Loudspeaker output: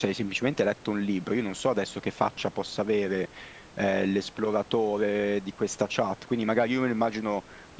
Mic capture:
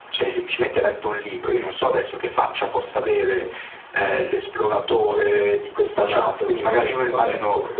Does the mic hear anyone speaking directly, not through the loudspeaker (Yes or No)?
Yes